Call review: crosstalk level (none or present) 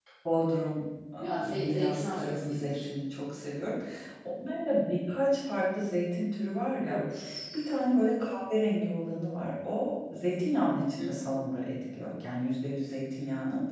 present